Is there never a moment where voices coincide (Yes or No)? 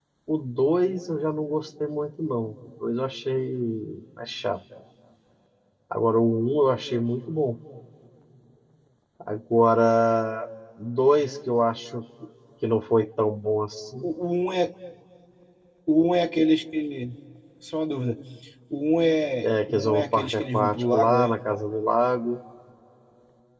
No